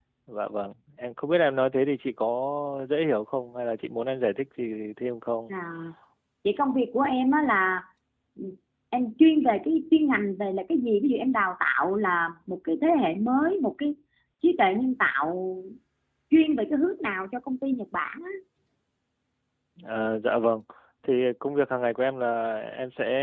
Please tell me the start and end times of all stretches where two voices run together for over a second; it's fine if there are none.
none

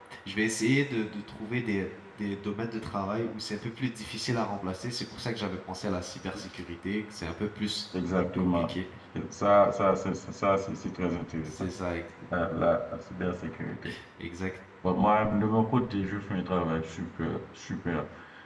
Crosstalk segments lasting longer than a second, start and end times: none

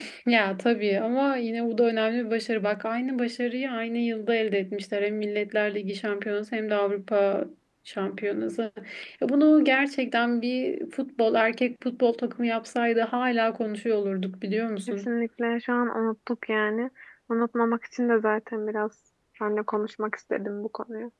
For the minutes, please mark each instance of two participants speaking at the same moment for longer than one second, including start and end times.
none

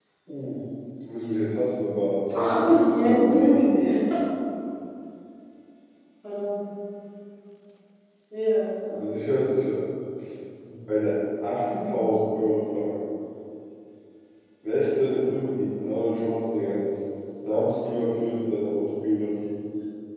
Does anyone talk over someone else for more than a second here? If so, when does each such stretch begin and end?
2.3-3.8

